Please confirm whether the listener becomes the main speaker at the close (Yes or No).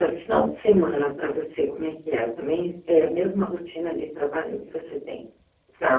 Yes